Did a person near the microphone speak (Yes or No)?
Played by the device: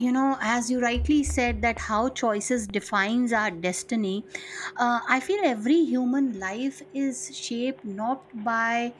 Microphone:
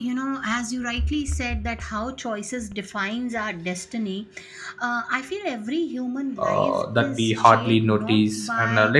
Yes